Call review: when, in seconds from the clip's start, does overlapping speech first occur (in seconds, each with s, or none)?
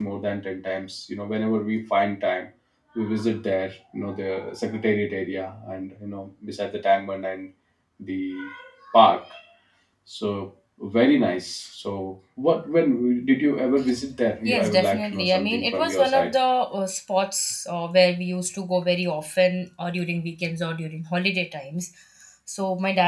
14.4 s